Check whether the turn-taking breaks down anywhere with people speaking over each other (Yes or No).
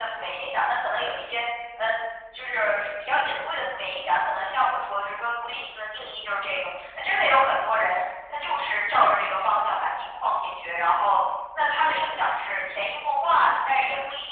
No